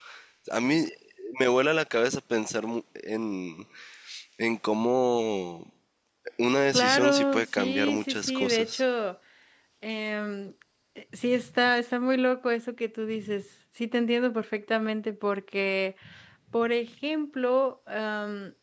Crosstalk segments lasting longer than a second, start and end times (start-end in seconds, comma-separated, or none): 6.7-8.8